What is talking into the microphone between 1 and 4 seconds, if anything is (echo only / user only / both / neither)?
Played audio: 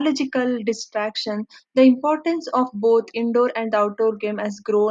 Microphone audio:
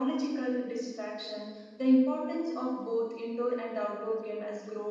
echo only